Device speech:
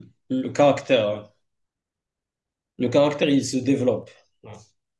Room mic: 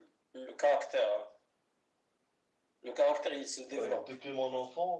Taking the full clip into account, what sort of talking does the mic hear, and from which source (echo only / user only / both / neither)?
both